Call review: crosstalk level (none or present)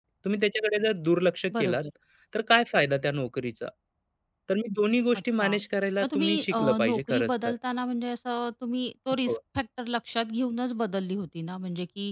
present